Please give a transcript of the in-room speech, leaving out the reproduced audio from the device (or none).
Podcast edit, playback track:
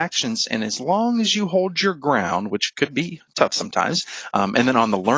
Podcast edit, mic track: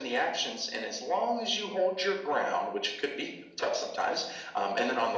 none